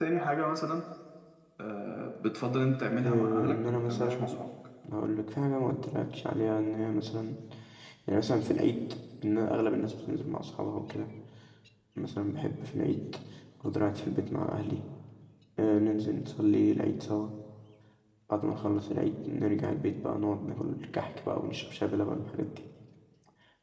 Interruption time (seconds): 2.9 s

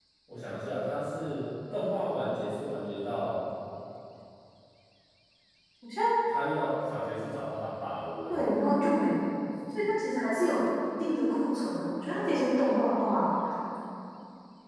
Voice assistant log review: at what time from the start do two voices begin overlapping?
none

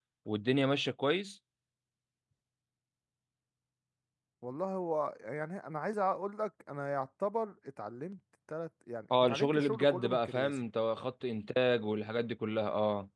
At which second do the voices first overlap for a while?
9.1 s

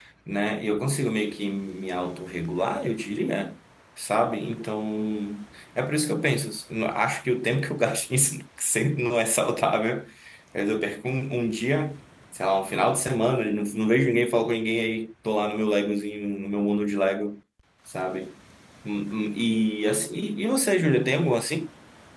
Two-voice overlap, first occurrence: none

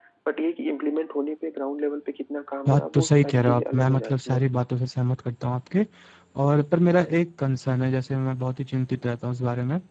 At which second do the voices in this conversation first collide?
2.6 s

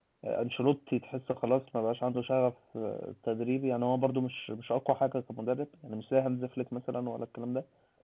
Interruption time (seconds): none

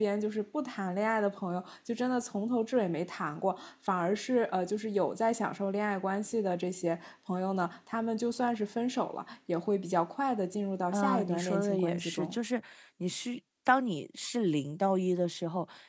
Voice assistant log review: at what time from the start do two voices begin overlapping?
10.9 s

